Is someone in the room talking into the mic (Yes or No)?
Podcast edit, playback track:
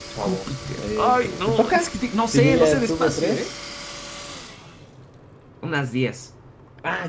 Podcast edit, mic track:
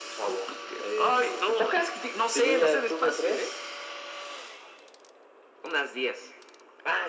No